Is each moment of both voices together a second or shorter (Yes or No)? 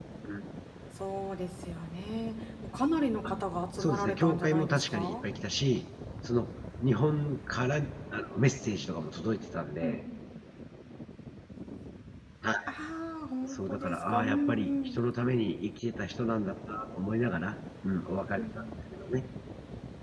No